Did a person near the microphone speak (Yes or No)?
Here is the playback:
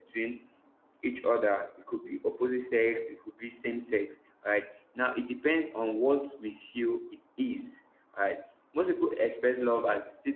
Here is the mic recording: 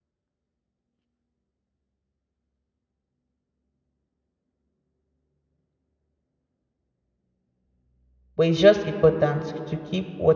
Yes